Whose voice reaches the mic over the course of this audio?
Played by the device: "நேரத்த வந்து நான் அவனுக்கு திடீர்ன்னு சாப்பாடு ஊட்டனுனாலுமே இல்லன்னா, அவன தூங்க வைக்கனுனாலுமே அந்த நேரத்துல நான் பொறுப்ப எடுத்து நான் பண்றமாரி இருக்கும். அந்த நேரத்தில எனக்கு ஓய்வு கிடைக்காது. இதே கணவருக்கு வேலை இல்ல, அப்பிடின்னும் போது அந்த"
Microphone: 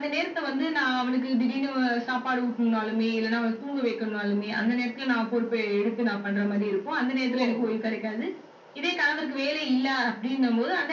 both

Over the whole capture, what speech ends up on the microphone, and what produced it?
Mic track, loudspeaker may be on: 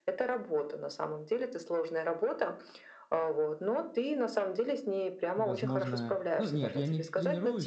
both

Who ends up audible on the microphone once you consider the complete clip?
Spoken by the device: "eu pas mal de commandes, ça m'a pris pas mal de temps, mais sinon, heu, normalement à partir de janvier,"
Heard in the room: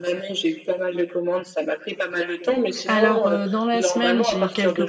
both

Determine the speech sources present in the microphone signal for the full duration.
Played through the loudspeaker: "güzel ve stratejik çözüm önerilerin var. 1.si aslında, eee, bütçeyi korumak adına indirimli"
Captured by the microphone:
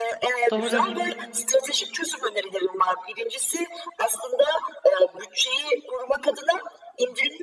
both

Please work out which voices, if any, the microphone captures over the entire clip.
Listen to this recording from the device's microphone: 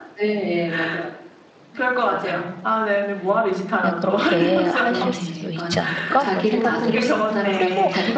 both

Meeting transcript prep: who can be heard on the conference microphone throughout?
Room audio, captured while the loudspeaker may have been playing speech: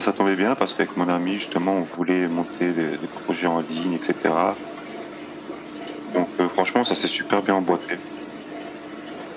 echo only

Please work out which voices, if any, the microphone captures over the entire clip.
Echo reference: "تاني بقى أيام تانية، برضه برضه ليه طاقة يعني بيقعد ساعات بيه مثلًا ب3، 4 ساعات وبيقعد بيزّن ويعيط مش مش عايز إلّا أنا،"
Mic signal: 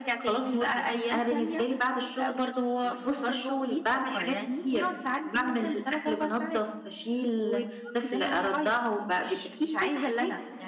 both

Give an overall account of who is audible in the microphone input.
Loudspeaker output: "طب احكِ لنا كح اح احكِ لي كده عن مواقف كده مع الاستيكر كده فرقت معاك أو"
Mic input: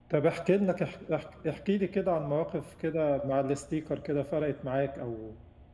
echo only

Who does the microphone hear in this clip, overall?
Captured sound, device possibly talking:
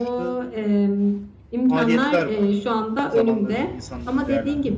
both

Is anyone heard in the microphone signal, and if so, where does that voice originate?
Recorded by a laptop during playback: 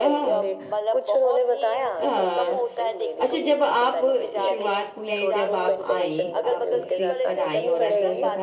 both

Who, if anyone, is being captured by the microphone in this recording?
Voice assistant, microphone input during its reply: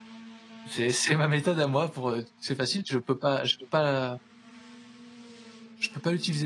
user only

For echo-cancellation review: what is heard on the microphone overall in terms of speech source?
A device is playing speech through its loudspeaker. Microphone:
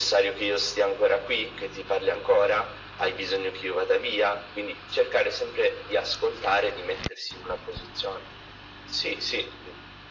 echo only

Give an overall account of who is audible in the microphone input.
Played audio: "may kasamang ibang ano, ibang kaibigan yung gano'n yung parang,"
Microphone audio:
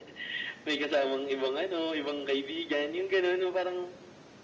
echo only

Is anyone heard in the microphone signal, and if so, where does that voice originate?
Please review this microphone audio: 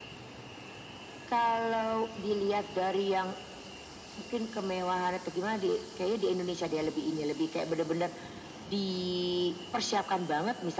echo only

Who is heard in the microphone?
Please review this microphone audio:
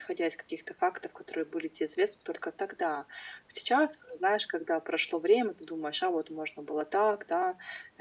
echo only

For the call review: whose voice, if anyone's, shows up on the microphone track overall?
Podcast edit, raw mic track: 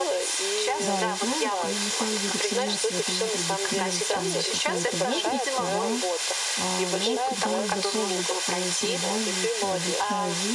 both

